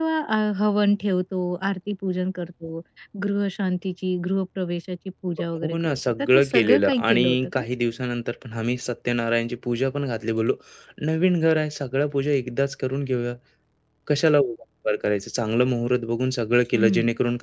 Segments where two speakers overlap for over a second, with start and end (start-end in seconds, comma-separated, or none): 5.6-7.6